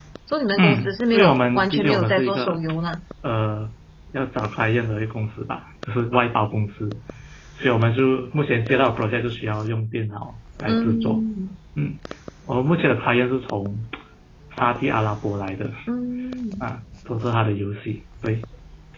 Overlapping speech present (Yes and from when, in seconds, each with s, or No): Yes, from 0.6 s